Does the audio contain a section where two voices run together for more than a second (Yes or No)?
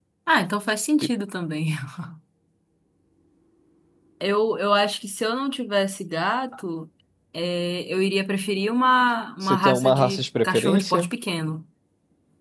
Yes